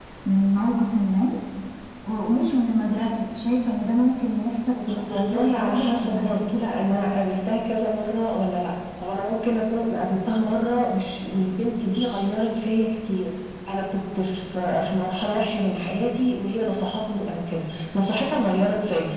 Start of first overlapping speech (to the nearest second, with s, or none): 5 s